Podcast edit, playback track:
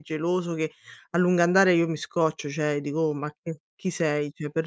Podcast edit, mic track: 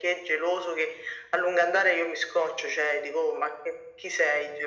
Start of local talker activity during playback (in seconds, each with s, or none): none